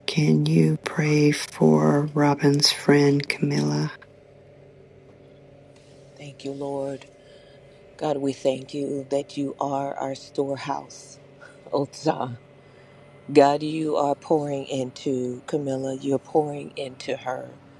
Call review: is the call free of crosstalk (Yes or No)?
Yes